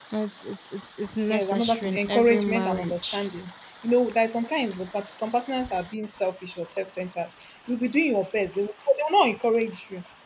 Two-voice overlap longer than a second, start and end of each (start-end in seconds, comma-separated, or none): 1.3-3.2